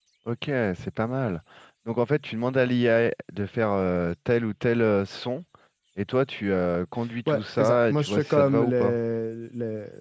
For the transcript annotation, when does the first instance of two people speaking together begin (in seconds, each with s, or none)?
7.3 s